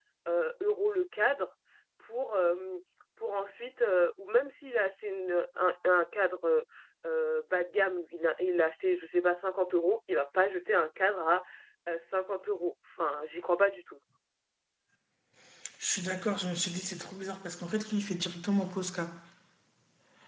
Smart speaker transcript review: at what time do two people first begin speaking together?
none

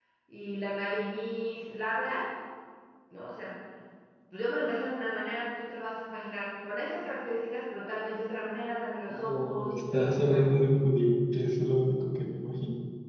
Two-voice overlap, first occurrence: 9.1 s

